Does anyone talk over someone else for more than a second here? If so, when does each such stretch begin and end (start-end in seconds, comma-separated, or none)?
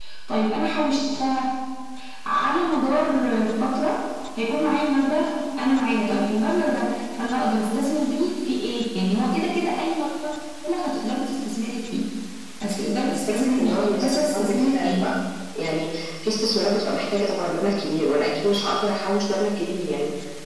13.1-15.1